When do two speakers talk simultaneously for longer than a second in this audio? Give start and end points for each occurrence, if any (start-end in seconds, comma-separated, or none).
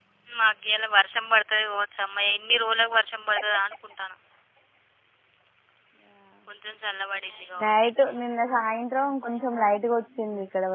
none